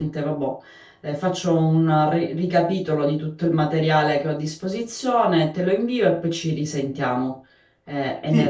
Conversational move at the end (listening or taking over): taking over